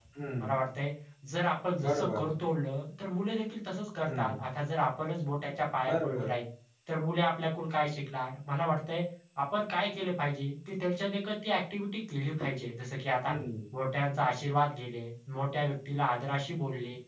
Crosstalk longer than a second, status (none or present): none